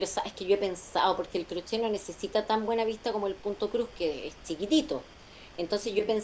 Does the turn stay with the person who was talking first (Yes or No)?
Yes